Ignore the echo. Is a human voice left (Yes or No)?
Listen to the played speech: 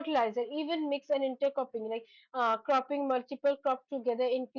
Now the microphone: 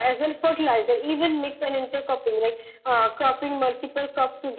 No